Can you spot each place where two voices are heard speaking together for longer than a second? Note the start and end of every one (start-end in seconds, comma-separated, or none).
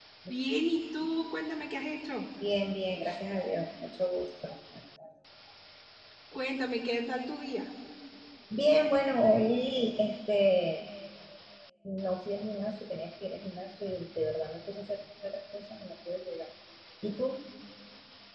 none